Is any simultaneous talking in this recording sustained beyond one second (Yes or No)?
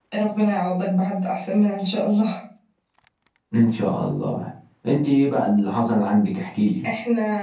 No